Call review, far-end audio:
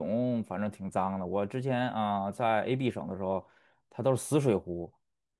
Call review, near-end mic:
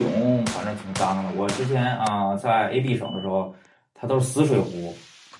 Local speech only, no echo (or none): none